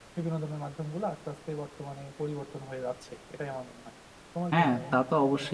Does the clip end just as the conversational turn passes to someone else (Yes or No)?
Yes